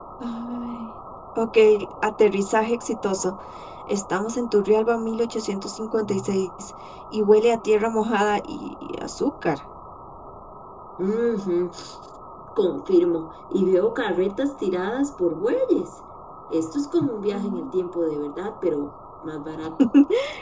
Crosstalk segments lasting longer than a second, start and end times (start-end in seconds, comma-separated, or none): none